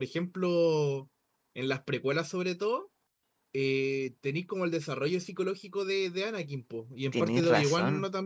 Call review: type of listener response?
listening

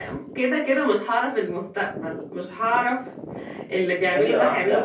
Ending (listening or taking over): listening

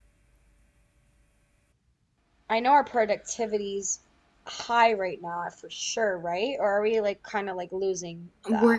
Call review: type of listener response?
taking over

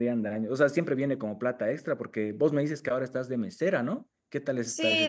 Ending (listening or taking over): taking over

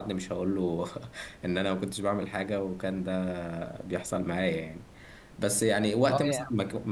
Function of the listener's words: listening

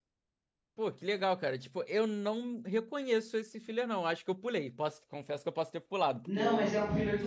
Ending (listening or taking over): taking over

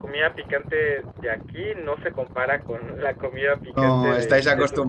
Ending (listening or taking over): taking over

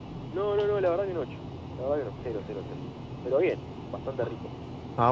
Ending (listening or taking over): taking over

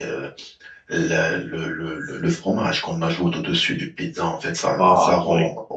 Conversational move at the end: listening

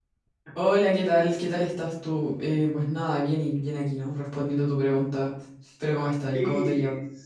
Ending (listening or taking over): taking over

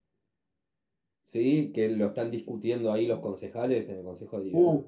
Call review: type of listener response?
taking over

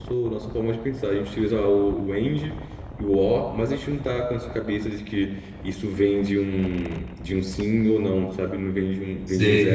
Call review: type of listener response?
listening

